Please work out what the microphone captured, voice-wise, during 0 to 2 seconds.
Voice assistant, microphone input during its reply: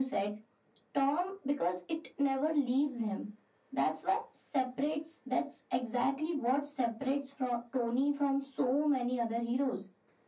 echo only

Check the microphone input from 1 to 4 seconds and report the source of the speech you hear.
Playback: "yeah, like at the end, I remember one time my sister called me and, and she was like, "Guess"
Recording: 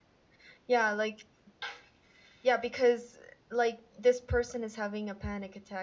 user only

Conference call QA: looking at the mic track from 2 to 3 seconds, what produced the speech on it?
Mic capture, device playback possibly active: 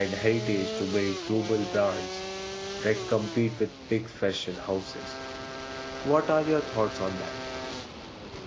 user only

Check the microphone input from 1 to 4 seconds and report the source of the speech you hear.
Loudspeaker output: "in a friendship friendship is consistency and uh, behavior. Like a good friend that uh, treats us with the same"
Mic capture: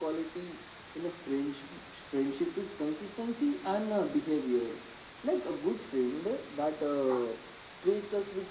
echo only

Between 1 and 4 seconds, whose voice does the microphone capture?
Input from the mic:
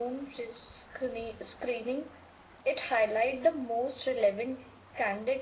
echo only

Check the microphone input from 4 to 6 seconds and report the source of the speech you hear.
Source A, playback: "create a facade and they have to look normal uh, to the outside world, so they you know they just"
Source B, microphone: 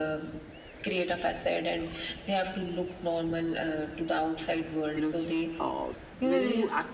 both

